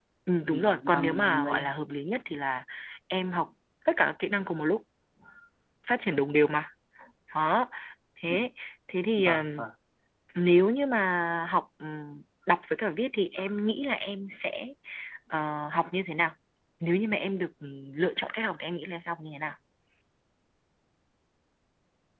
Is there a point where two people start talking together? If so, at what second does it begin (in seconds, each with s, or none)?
0.5 s